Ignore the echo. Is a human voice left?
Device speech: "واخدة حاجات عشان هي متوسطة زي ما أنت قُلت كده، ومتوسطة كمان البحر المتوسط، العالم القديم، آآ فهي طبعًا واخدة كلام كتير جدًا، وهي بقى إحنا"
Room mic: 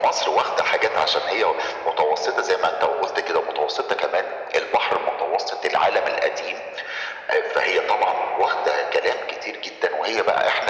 No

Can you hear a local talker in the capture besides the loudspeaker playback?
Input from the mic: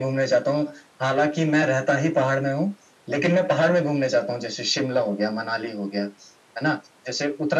No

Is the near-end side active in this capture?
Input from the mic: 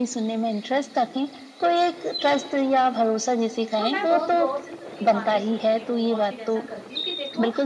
Yes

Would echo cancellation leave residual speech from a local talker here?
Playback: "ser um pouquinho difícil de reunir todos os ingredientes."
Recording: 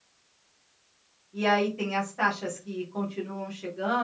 Yes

